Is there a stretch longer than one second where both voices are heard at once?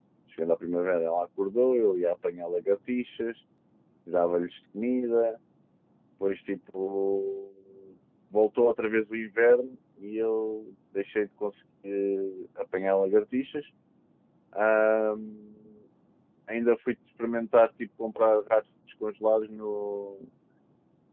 No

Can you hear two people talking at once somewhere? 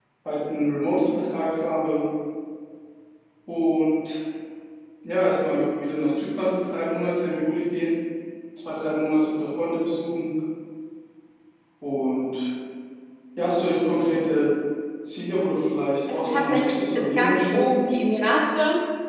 Yes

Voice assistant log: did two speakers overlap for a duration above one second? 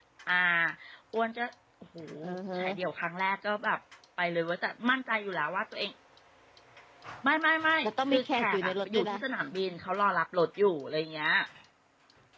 Yes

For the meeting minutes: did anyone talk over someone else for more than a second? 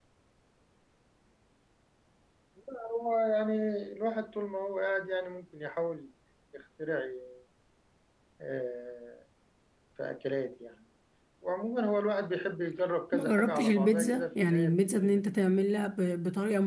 Yes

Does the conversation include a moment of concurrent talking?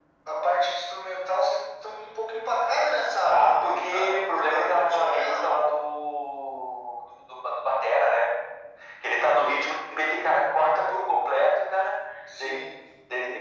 Yes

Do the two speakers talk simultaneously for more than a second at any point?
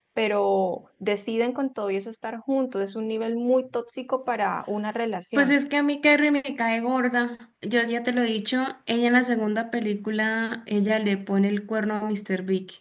No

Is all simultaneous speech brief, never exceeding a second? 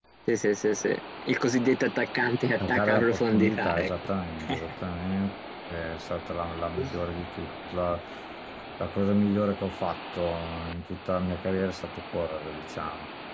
No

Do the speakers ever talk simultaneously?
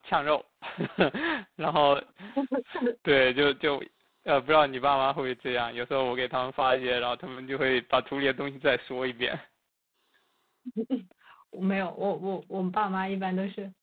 No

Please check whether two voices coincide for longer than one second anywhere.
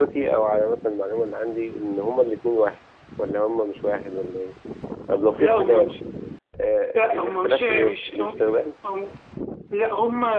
Yes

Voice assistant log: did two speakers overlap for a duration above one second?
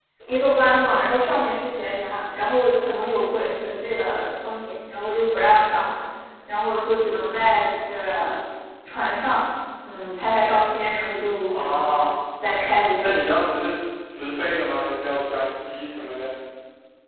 No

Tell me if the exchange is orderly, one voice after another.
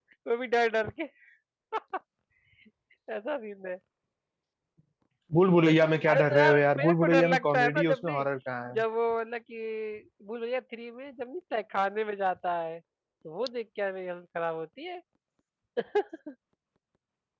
No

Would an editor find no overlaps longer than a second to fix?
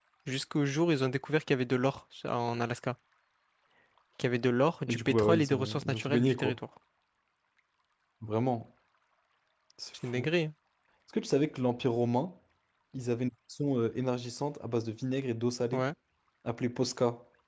No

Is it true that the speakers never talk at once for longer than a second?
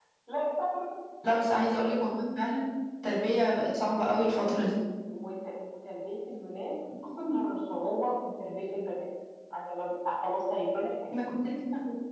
Yes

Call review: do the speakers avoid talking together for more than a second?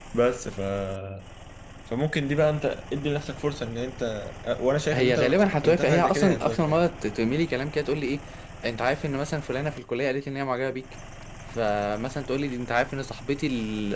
No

